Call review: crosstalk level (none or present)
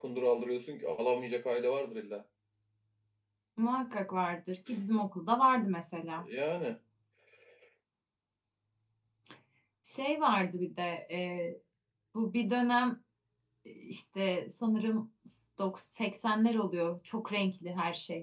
none